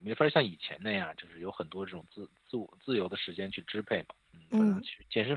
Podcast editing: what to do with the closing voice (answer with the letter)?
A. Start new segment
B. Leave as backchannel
B